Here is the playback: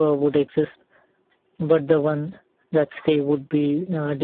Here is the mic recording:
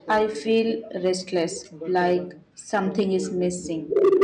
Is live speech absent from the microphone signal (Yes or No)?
No